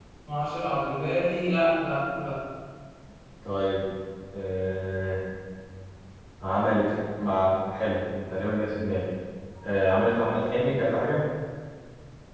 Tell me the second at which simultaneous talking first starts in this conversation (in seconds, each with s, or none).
none